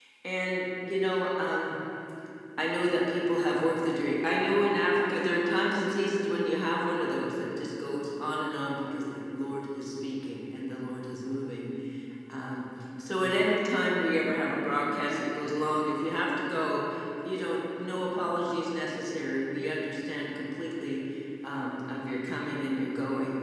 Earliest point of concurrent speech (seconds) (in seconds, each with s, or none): none